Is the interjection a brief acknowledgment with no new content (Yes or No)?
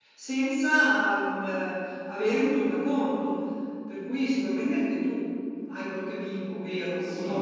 No